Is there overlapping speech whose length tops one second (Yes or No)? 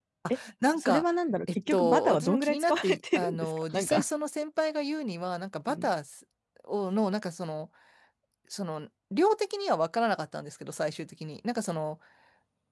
Yes